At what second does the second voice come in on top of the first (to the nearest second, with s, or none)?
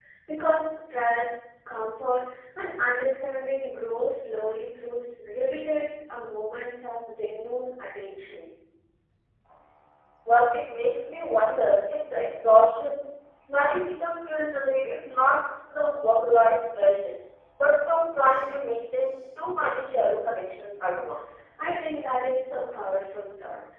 none